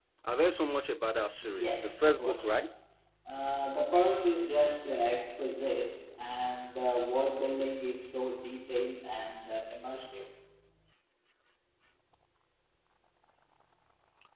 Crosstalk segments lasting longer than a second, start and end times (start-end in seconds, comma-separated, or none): 1.5-2.7